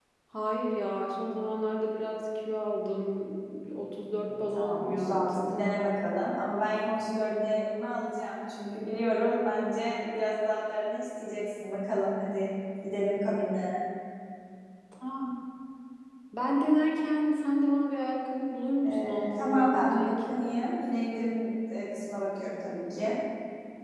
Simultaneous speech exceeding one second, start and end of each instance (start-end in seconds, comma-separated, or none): 4.2-5.5, 18.8-20.1